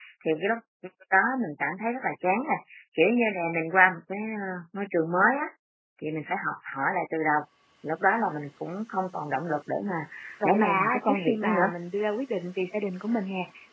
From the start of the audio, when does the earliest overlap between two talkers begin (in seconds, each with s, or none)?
10.4 s